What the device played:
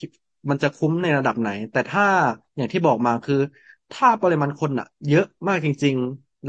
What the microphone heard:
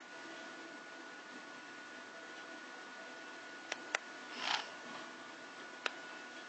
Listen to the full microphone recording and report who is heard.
neither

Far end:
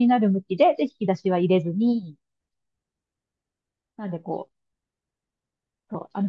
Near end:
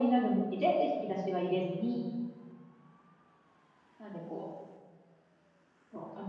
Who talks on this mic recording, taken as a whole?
echo only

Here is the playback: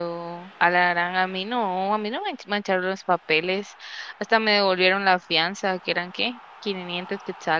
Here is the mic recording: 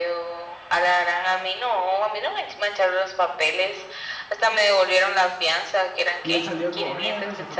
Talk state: both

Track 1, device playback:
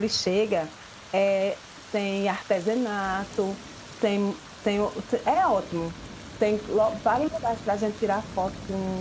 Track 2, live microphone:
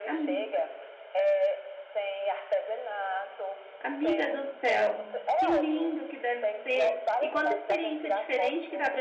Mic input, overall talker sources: both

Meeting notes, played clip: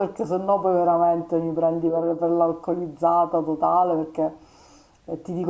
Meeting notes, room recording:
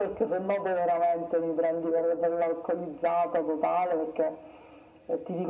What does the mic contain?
echo only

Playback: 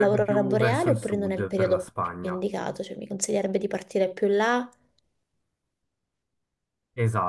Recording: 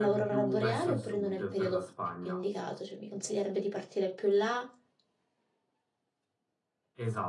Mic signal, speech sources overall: echo only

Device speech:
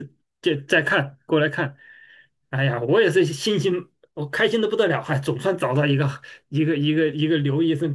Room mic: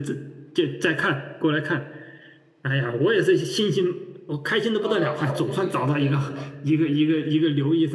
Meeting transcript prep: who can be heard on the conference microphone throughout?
both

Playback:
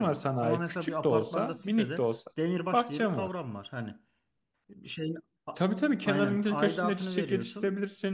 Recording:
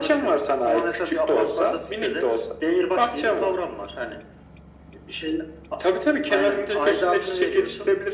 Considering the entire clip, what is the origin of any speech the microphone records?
echo only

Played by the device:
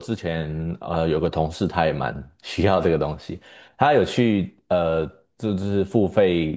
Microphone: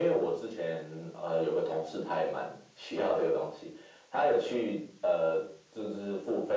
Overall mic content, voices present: echo only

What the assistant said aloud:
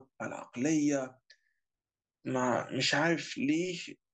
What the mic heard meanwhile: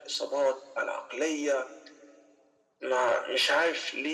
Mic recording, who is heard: echo only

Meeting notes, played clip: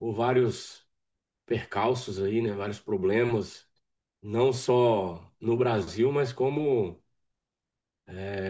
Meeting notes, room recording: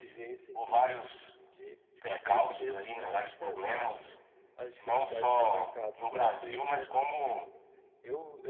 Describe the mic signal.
both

